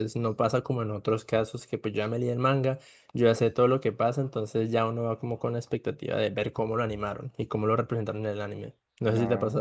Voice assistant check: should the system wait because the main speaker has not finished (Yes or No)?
No